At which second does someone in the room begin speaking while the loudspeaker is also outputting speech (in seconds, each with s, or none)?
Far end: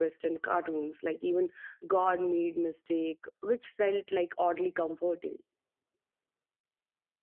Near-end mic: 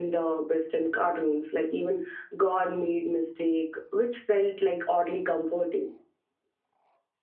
none